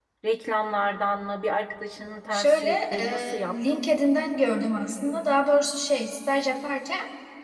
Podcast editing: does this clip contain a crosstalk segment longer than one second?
Yes, from 2.3 s

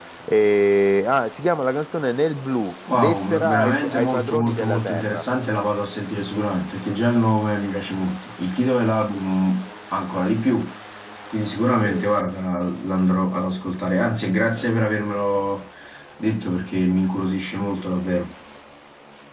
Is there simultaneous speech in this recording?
Yes, from 2.9 s

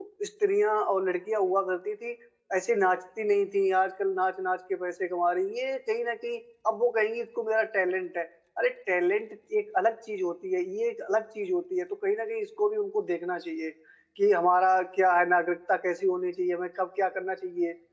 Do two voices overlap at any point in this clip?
No

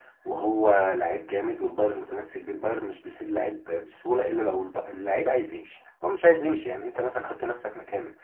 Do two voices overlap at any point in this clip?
No

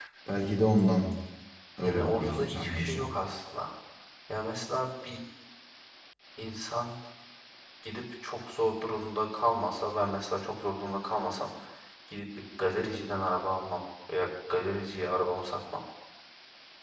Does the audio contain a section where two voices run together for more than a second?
Yes, from 1.8 s

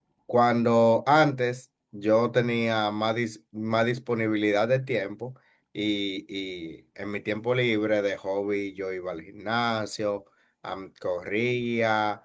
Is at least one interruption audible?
No

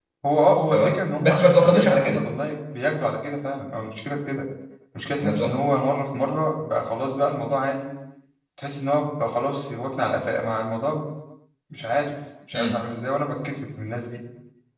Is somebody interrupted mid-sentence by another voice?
Yes, from 0.7 s

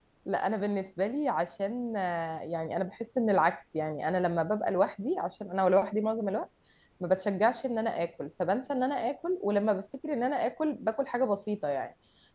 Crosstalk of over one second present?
No

